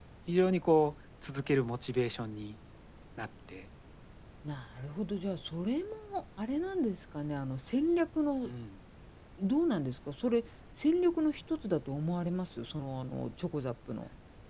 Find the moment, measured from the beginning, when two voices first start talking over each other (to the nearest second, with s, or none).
none